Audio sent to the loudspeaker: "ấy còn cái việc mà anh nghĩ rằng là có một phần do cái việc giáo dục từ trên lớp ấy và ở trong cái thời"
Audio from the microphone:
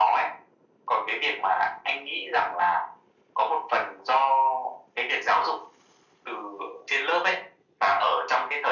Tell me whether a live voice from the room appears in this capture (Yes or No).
No